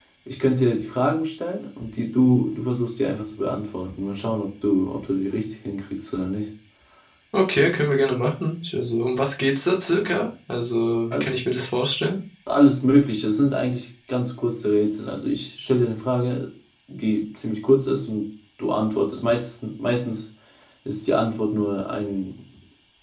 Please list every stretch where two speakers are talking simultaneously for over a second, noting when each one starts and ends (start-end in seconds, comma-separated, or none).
none